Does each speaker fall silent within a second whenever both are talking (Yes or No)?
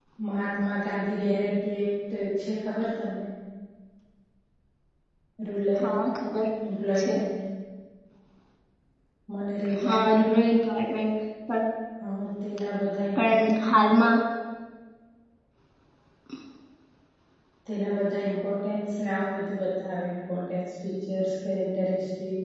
Yes